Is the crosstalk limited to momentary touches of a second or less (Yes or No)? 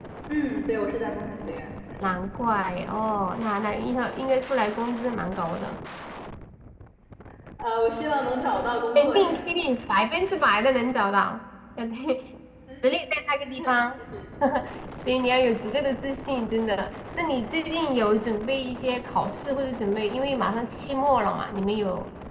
Yes